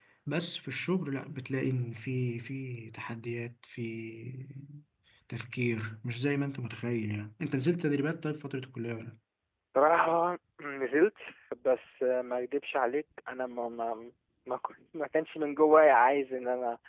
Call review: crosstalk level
none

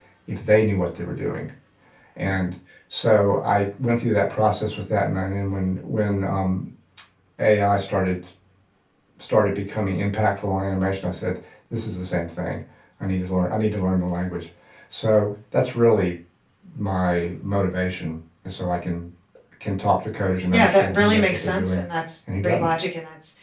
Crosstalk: present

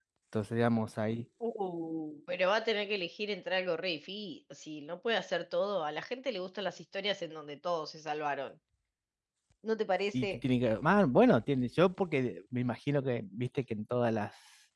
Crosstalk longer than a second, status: none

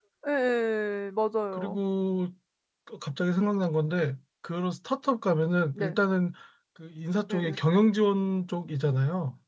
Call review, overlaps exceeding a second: none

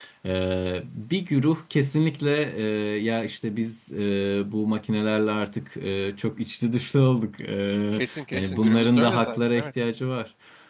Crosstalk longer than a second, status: present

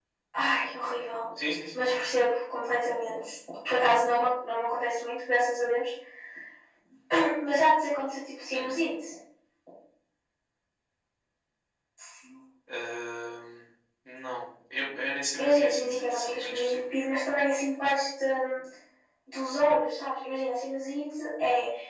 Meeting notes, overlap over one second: present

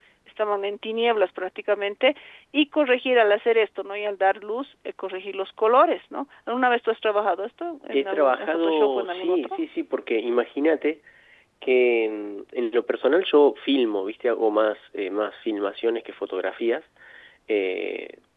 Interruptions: present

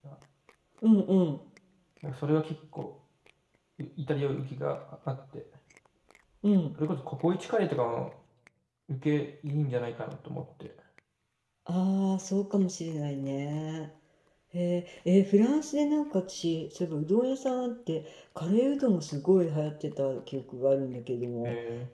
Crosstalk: none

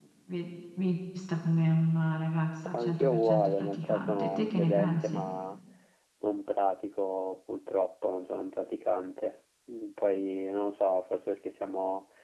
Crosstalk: present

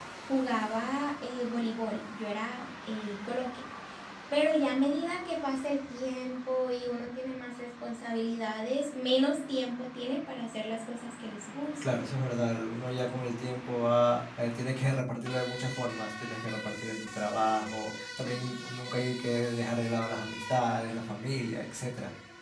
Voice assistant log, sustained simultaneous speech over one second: none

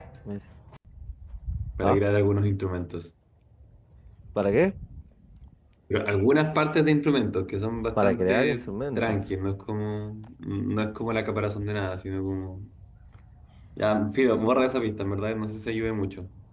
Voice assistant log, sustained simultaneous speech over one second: present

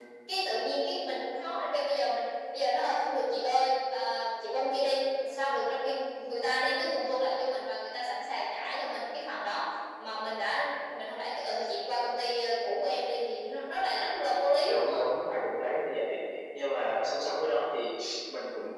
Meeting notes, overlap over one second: none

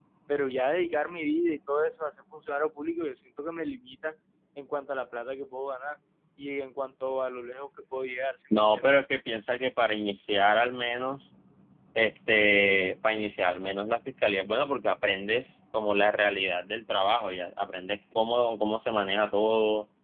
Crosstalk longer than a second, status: none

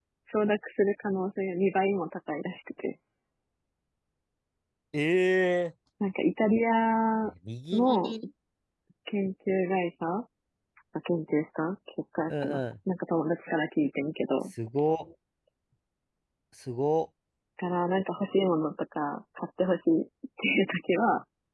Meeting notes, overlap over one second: none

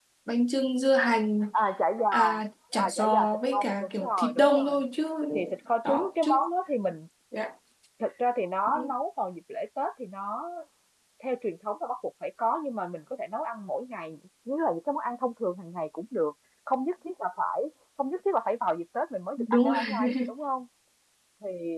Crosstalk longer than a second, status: present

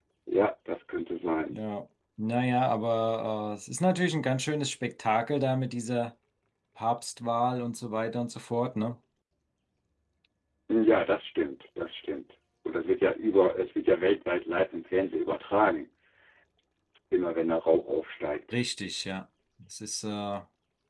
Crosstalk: none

